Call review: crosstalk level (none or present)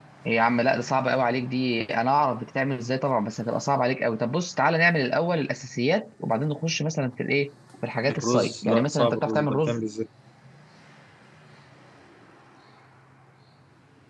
present